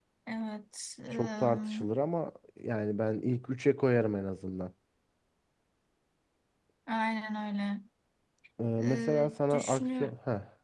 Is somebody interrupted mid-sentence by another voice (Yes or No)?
Yes